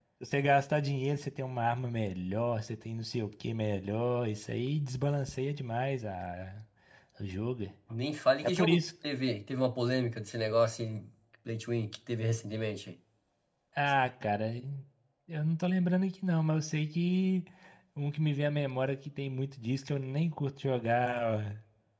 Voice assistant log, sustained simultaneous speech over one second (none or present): none